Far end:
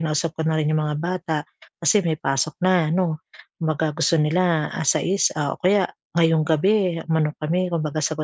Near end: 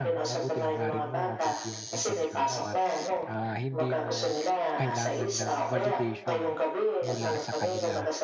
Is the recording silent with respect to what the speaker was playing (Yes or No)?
No